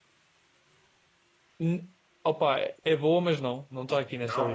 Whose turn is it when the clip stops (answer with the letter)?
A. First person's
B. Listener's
A